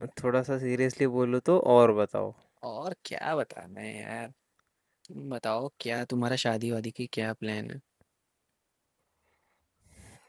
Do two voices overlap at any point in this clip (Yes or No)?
No